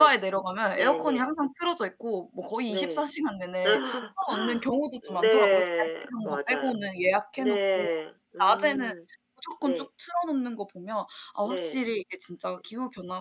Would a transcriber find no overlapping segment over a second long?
No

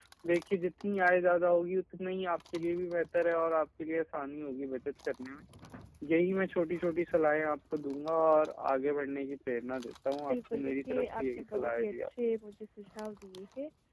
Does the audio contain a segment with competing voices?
Yes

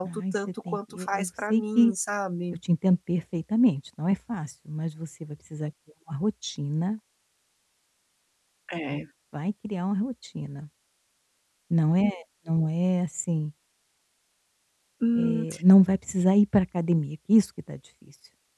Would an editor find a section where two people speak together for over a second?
Yes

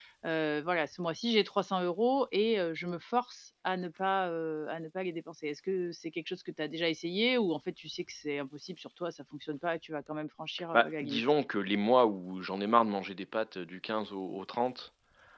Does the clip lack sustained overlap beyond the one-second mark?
Yes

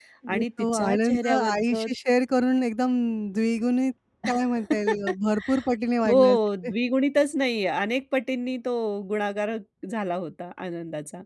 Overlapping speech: Yes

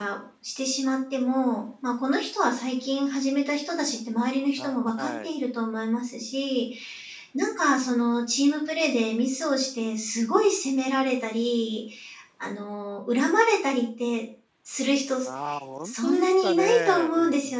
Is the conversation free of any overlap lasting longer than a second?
No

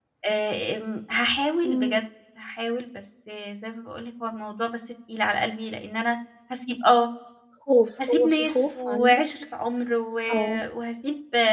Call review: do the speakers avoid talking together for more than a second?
No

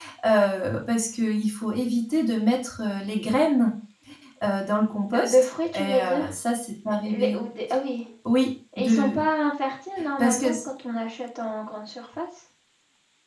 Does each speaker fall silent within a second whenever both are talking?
No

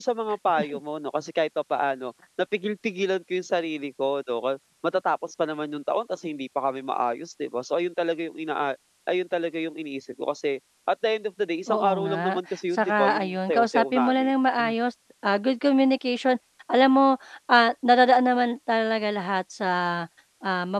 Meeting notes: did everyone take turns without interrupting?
No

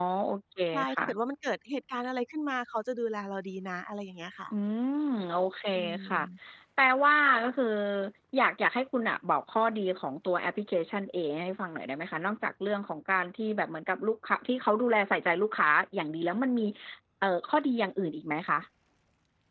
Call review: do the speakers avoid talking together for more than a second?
Yes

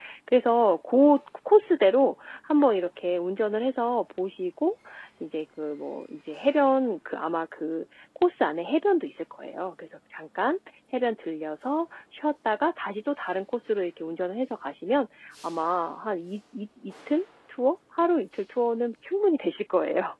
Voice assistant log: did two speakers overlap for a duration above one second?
No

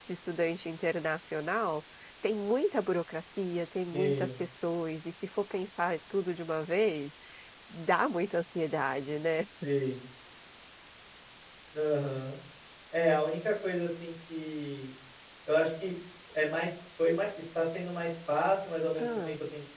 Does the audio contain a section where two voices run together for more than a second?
No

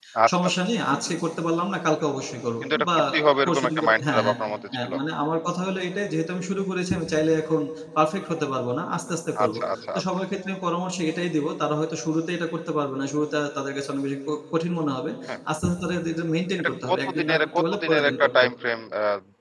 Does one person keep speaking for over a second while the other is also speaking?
Yes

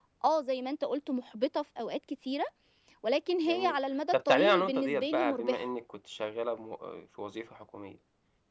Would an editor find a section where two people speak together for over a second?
Yes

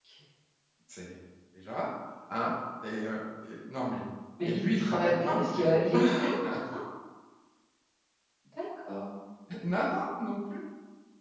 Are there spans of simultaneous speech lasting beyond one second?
Yes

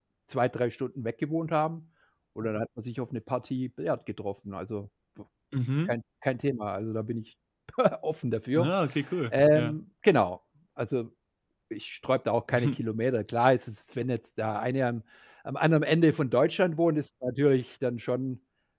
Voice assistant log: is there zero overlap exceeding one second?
Yes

